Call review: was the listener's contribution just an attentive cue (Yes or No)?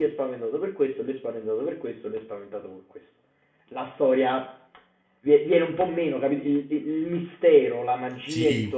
Yes